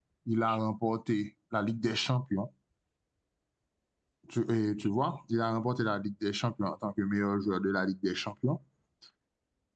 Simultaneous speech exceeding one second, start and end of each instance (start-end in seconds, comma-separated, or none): none